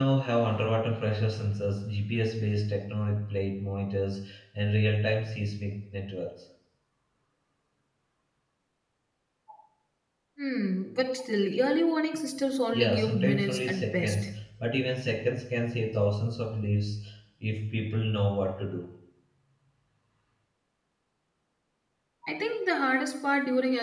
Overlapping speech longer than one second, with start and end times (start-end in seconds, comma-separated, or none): 12.7-14.2